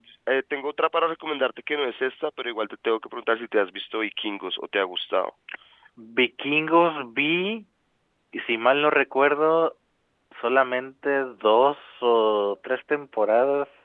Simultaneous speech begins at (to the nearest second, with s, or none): none